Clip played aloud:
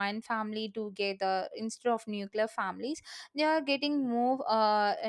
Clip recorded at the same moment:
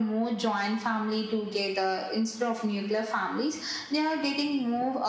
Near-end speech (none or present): none